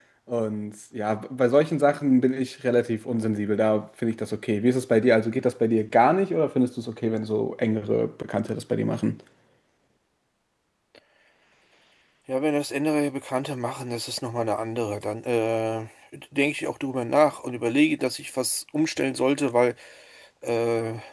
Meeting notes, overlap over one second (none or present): none